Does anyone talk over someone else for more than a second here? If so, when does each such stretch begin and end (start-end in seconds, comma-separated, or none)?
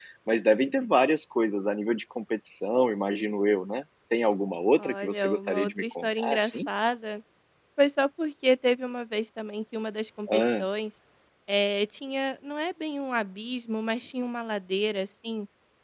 4.8-6.7